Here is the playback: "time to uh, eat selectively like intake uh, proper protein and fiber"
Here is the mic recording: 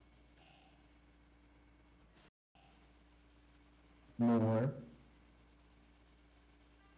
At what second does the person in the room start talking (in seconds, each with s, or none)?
4.2 s